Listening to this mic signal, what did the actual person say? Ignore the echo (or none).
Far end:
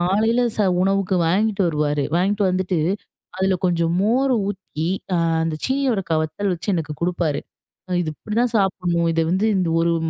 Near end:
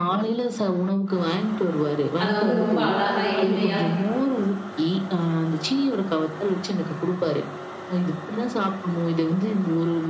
அத வந்து ரொம்ப அழகா, எளிமையா,